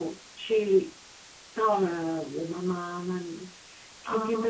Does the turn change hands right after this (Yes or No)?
No